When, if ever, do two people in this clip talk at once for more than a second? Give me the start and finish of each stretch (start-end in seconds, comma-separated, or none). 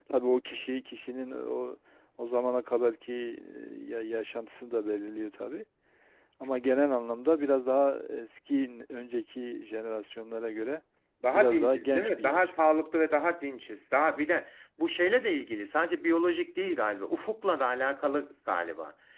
11.3-12.5